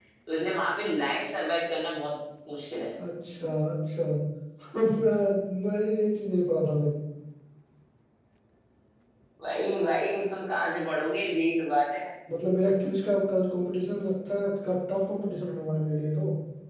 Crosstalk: none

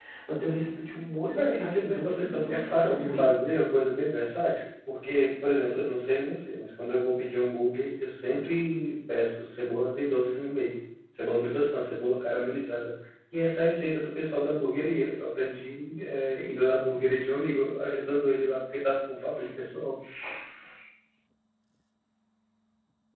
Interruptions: present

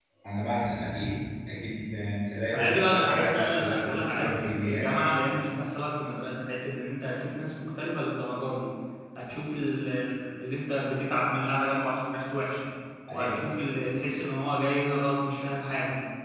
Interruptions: present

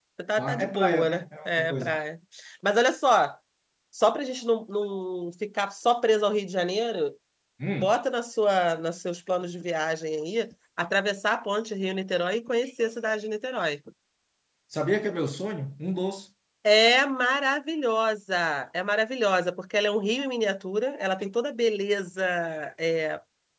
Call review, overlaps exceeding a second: present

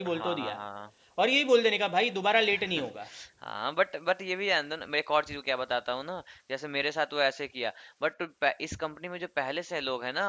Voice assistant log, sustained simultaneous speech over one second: none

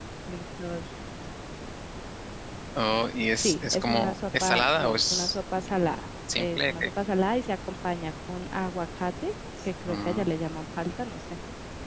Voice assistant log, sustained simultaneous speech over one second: present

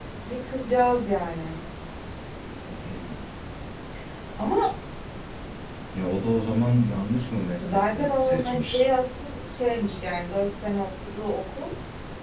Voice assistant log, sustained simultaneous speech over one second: present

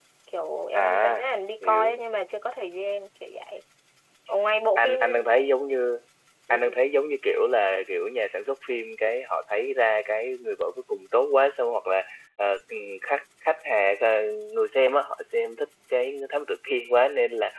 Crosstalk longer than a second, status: none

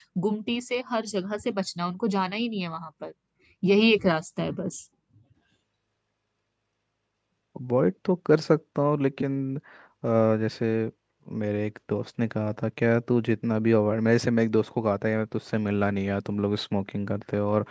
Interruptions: none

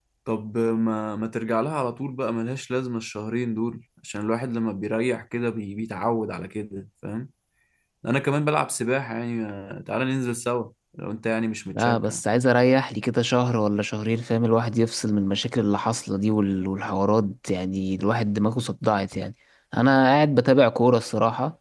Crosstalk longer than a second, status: none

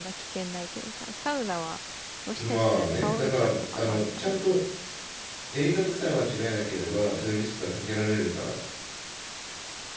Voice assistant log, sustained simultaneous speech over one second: present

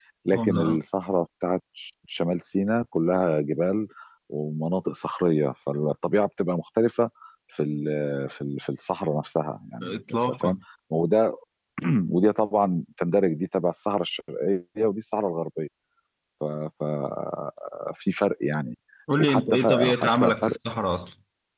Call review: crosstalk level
present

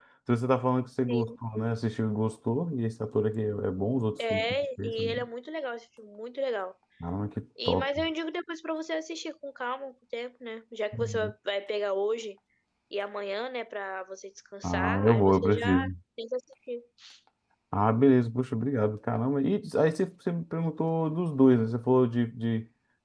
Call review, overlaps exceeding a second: present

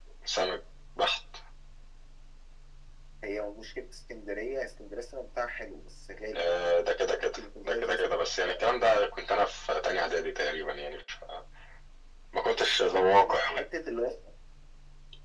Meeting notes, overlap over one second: present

